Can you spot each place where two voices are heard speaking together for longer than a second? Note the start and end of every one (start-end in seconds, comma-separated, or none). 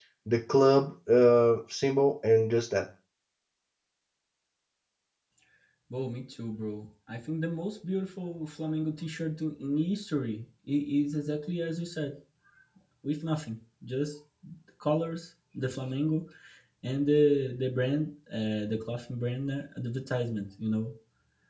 none